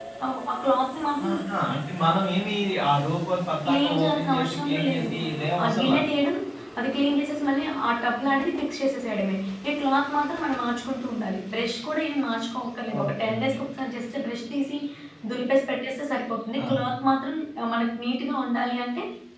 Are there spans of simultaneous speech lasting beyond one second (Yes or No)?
Yes